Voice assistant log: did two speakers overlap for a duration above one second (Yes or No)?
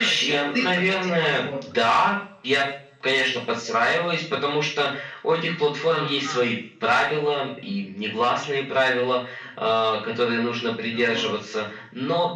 Yes